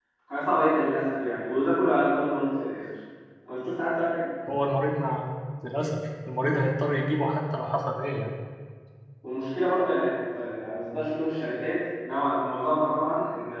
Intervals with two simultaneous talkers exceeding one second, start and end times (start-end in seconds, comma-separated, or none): none